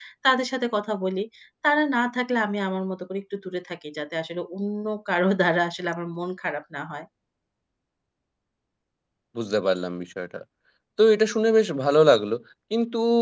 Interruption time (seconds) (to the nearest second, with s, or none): none